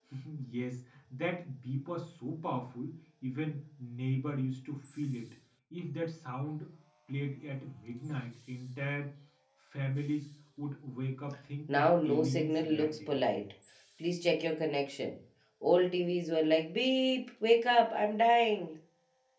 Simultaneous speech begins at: 12 s

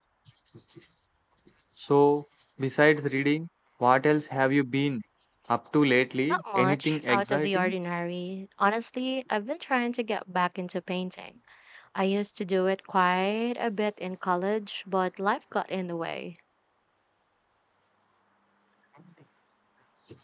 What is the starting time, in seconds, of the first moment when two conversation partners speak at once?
6 s

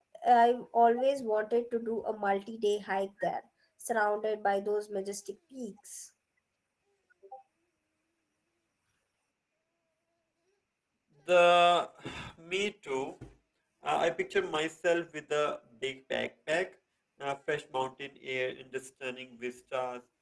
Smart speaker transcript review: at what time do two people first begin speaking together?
none

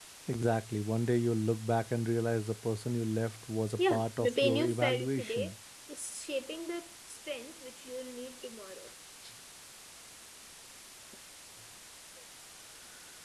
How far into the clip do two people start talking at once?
4 s

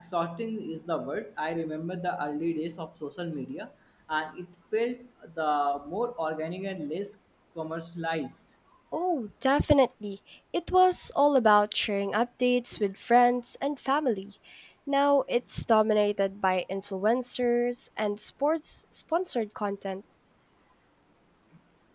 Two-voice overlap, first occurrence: none

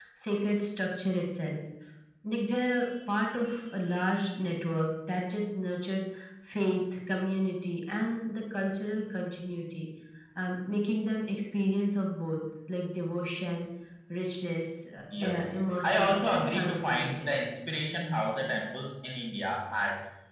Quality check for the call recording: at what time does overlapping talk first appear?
15 s

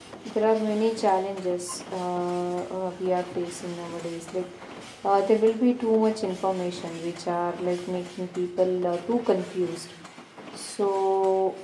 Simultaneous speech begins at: none

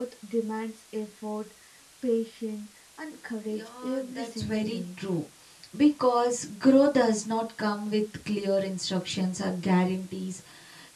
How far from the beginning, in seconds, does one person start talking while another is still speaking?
3 s

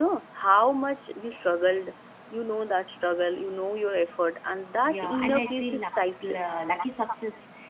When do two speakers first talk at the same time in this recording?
5 s

